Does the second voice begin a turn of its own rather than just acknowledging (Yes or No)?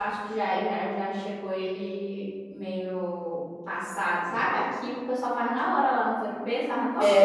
Yes